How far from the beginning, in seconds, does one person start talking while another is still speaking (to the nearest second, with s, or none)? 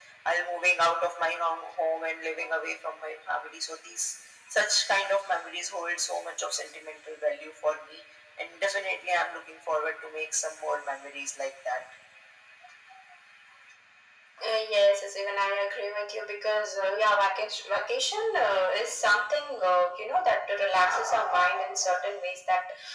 none